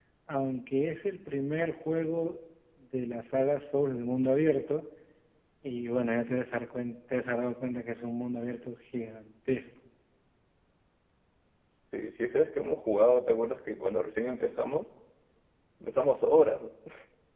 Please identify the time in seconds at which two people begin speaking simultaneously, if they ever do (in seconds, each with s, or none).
none